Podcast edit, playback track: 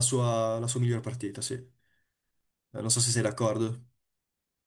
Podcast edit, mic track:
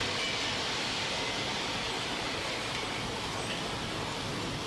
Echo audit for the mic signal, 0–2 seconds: neither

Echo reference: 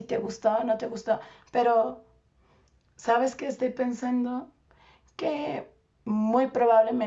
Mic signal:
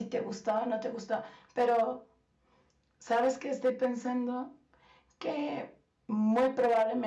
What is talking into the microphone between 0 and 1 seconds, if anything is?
echo only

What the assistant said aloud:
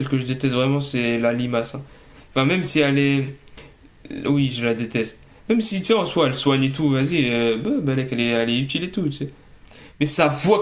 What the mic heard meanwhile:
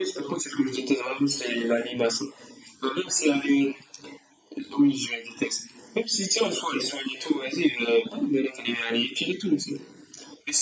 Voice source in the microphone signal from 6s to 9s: echo only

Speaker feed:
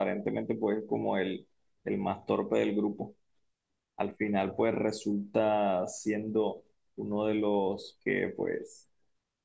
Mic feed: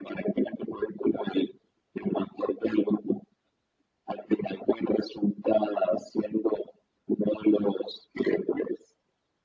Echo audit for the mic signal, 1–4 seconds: echo only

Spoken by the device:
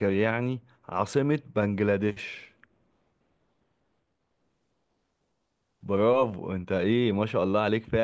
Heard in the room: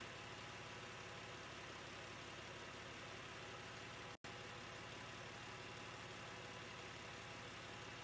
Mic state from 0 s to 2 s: neither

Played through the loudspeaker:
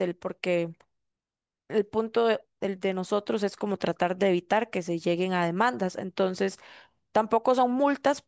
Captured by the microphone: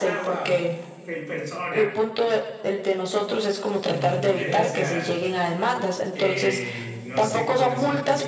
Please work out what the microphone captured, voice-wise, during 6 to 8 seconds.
both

